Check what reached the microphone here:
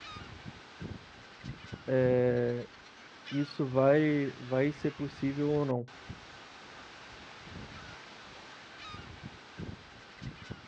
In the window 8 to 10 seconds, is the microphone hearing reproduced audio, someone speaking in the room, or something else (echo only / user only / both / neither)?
neither